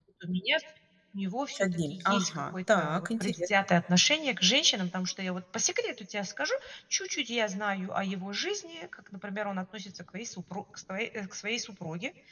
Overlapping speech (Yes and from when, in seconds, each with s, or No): Yes, from 1.5 s